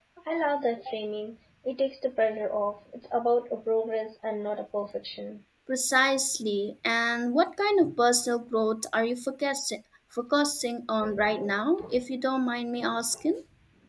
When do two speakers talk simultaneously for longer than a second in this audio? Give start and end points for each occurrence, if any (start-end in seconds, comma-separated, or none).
none